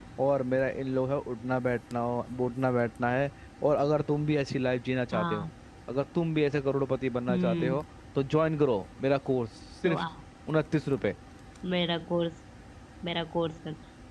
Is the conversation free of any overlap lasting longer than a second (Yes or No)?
Yes